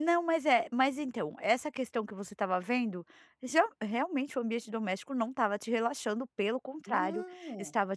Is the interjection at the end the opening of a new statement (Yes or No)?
No